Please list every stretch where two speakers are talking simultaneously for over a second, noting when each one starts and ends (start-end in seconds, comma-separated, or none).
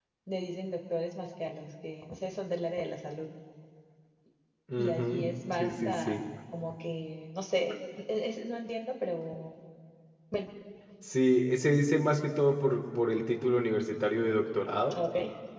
4.8-6.2